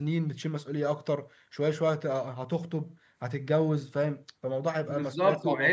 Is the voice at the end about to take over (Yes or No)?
Yes